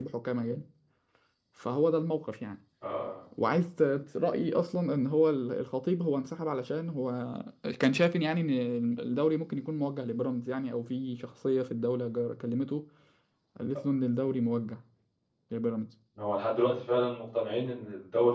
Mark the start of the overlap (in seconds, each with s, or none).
none